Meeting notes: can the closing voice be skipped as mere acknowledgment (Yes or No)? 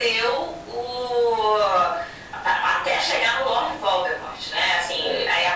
Yes